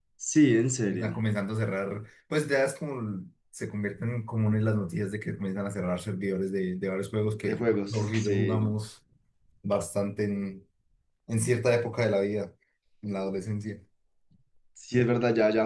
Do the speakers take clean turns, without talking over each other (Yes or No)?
No